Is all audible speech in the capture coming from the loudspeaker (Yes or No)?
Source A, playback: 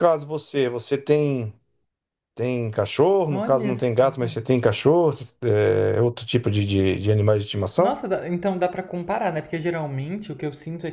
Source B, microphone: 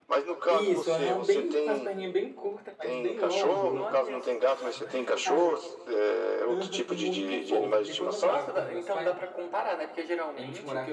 No